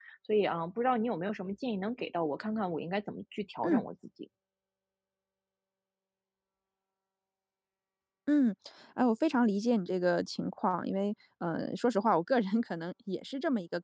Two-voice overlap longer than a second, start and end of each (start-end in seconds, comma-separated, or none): none